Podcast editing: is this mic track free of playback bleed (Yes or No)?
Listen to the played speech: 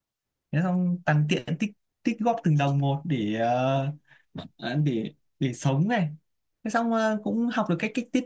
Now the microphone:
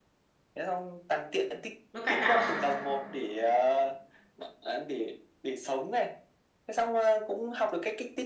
No